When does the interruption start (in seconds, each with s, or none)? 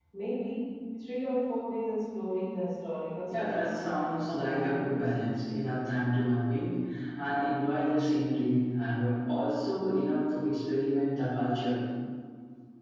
3.3 s